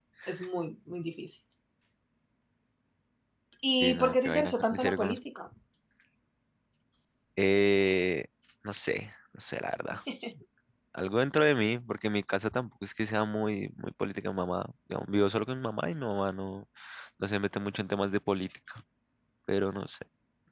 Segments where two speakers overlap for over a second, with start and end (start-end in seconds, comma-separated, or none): 3.8-5.2